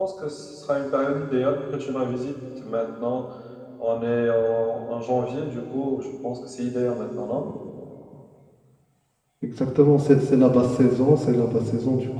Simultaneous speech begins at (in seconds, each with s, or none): none